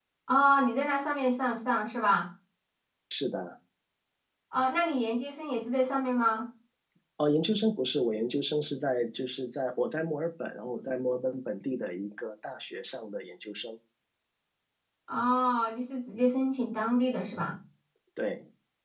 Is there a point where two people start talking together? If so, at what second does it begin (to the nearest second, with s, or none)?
none